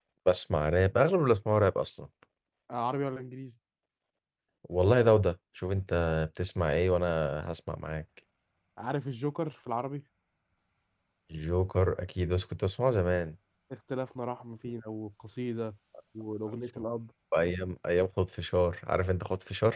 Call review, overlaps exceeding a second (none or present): none